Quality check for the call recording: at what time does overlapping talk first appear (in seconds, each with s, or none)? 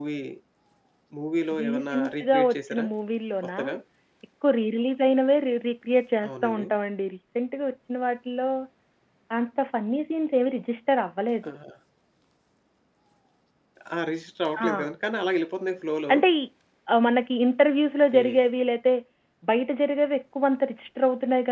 1.6 s